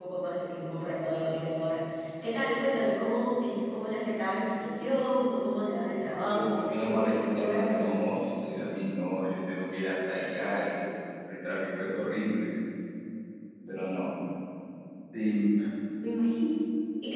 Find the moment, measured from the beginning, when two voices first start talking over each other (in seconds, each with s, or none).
6.2 s